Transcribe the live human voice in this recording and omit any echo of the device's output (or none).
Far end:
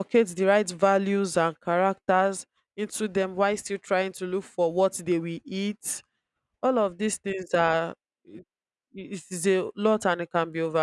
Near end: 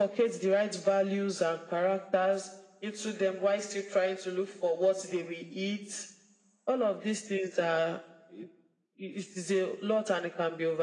none